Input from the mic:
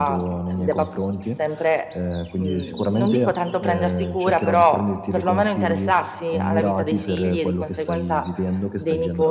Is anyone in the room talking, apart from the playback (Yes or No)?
No